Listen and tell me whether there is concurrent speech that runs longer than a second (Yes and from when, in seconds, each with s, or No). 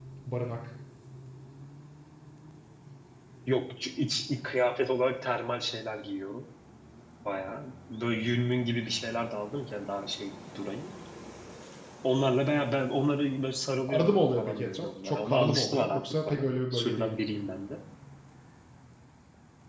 Yes, from 13.9 s